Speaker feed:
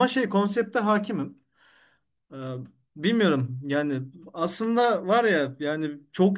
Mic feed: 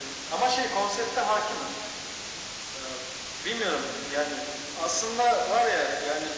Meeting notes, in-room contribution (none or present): none